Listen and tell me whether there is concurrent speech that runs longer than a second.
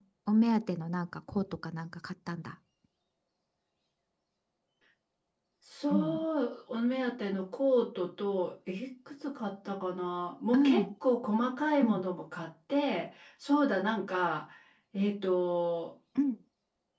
No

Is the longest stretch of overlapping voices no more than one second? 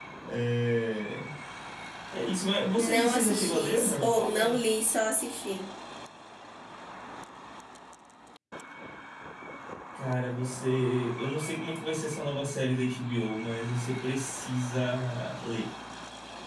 No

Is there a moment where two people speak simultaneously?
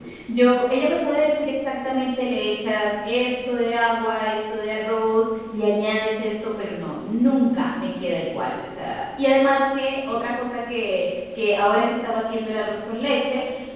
No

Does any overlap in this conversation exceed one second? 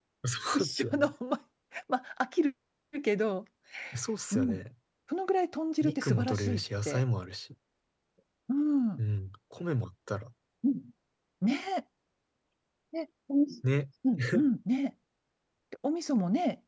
Yes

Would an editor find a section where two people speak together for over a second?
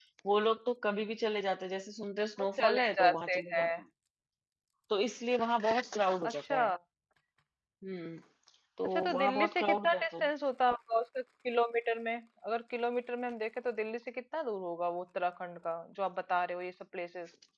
Yes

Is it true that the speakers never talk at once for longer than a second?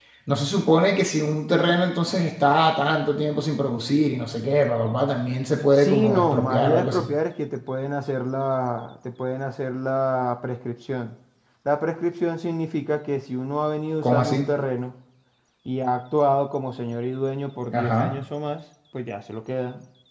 No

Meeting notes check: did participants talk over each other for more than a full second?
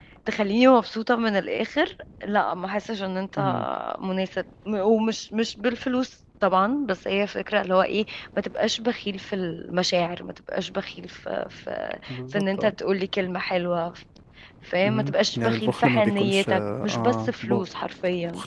Yes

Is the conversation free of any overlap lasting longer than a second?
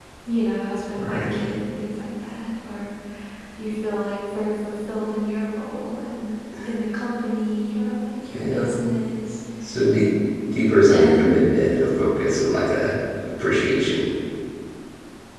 Yes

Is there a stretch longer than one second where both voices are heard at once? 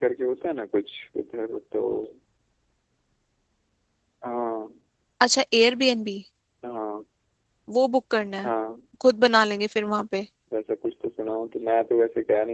No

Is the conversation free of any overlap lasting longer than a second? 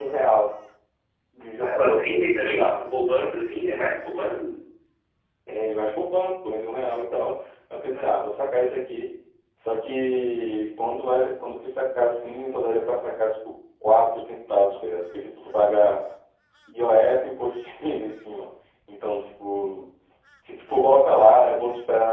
No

